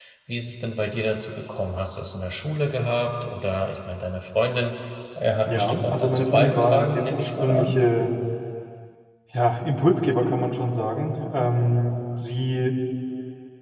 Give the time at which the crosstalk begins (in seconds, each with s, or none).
5.5 s